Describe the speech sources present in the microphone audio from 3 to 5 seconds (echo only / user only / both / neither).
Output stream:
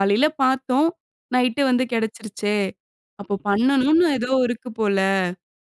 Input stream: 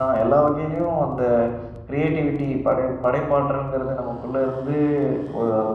user only